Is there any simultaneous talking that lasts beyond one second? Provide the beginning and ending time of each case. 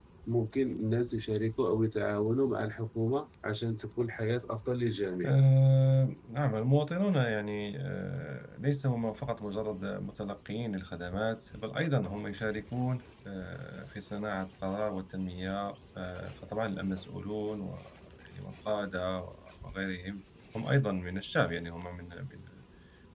none

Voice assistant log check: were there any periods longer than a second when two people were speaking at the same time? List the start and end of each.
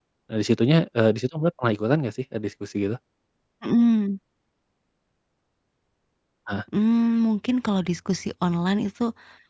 none

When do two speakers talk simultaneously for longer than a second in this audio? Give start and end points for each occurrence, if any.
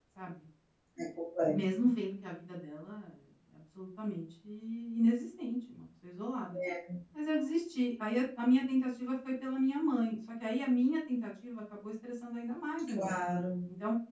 none

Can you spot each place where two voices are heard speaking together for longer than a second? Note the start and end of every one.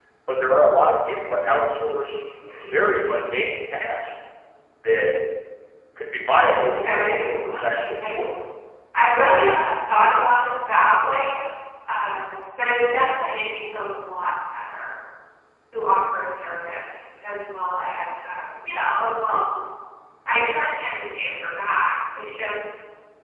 6.5-8.2

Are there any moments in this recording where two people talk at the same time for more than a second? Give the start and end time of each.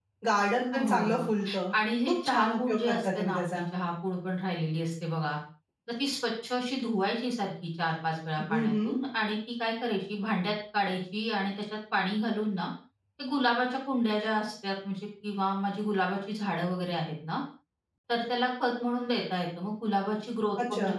2.1-3.6

